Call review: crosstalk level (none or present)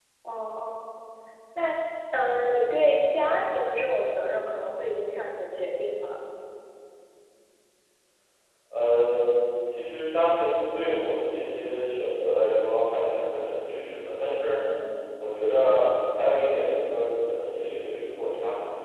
none